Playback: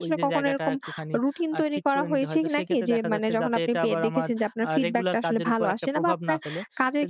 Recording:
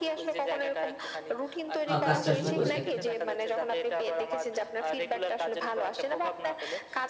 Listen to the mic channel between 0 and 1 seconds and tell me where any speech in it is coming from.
echo only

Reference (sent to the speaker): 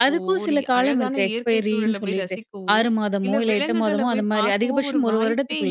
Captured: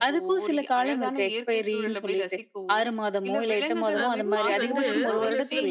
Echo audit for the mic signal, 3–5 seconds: both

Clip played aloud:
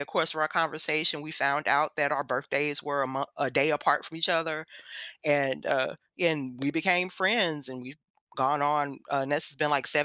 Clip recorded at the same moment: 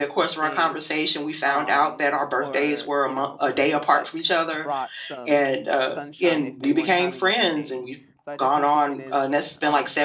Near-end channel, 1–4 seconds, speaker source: both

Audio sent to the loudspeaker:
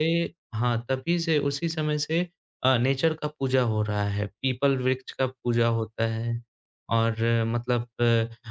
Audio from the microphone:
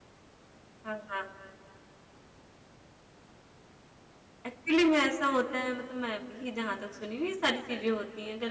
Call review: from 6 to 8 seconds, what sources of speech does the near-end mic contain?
user only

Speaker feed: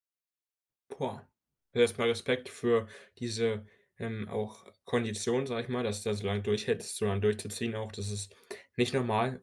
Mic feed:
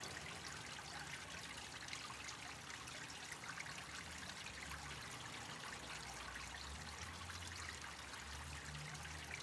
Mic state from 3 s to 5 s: neither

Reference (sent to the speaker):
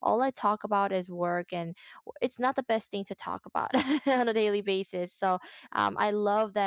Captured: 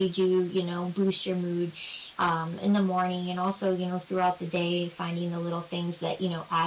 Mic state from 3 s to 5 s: user only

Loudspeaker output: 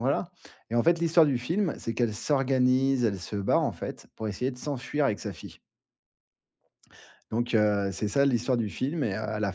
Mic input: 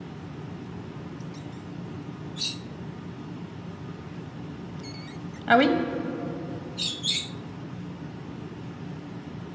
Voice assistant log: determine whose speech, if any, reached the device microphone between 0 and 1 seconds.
neither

